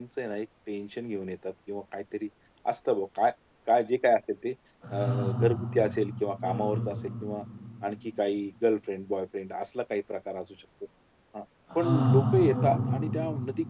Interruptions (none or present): present